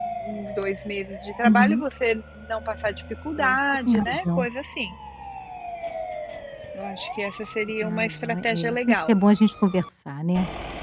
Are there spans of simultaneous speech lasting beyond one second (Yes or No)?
Yes